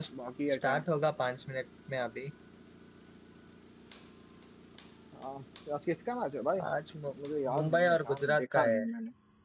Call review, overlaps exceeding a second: present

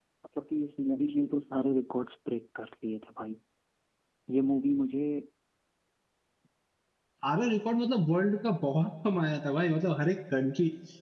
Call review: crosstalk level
none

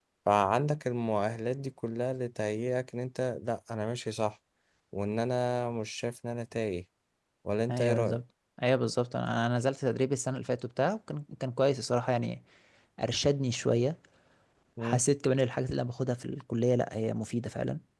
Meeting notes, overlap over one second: none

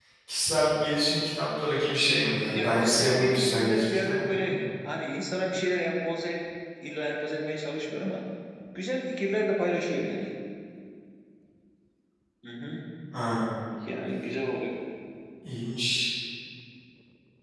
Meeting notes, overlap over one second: present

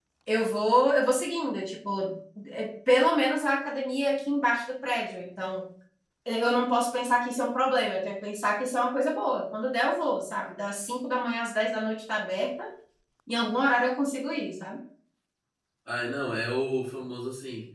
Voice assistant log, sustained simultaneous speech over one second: none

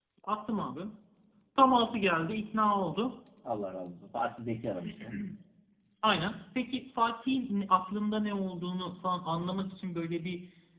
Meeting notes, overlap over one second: none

